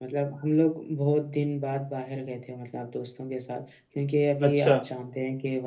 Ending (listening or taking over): listening